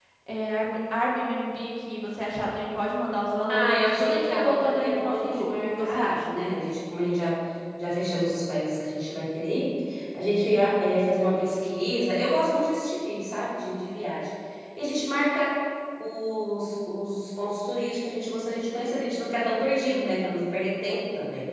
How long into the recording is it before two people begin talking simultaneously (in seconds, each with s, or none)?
3.5 s